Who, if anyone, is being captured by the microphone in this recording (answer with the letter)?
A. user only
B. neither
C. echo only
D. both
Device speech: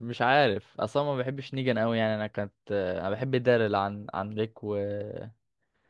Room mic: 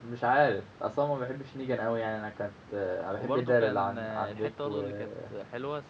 D